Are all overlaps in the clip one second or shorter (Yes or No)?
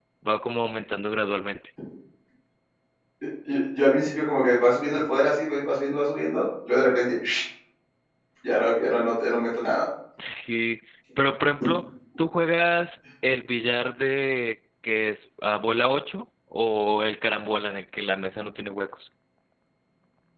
Yes